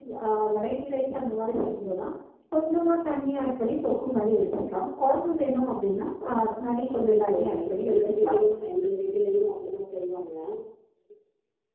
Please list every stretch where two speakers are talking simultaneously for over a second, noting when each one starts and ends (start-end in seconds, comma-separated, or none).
6.9-8.3